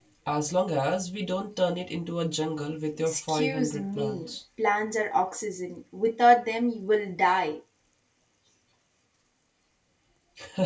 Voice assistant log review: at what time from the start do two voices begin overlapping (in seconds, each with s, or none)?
3.0 s